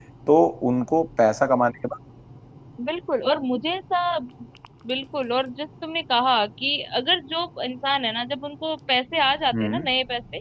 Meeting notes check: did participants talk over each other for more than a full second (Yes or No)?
No